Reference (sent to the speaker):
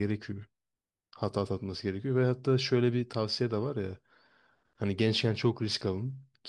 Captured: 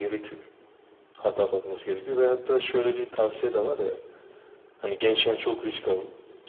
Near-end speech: none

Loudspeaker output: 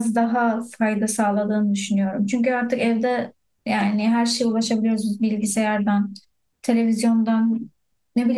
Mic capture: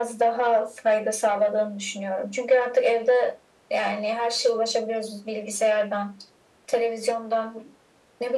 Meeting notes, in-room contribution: none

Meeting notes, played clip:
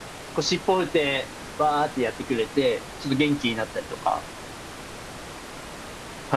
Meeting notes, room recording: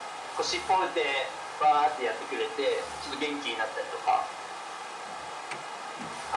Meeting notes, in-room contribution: none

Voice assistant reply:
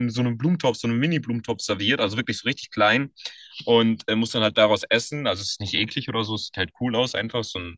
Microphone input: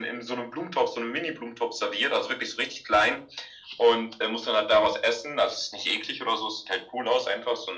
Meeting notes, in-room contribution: none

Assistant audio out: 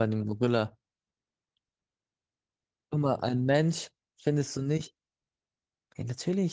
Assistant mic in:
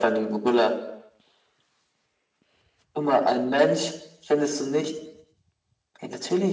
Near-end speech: none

